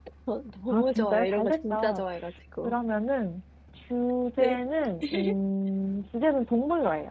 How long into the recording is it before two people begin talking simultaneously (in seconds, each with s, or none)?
0.7 s